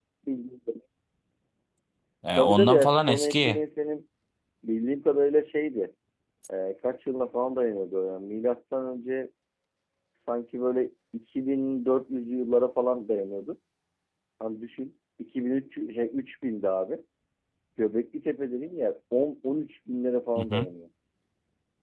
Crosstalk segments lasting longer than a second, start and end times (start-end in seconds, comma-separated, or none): 2.4-3.6